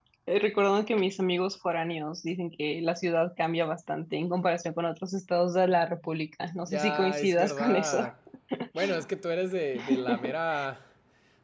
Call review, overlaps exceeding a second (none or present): present